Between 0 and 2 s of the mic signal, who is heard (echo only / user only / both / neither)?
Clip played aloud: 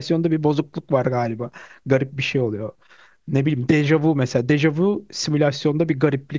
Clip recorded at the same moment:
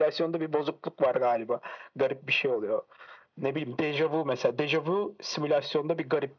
echo only